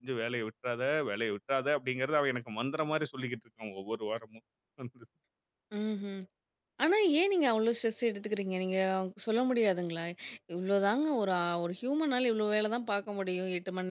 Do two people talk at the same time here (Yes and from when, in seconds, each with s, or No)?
No